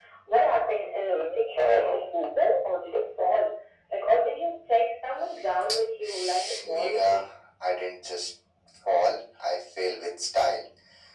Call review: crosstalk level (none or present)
present